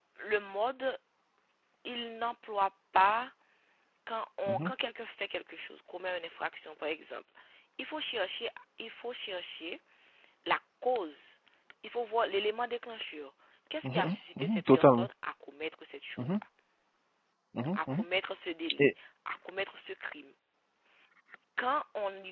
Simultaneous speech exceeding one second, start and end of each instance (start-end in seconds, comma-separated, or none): 13.8-15.1